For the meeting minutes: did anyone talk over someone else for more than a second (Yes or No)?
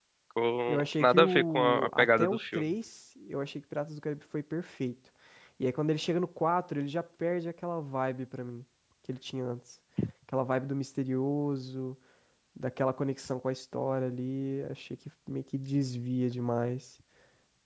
Yes